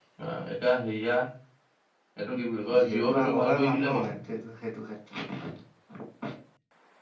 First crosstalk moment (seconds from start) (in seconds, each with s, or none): 2.8 s